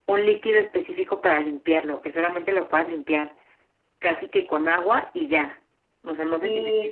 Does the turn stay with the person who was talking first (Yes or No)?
No